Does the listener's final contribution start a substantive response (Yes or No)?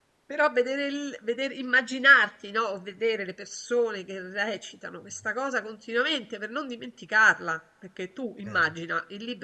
No